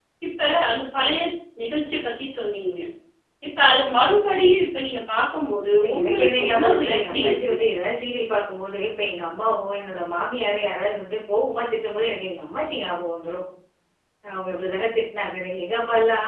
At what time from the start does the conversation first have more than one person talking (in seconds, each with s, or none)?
5.8 s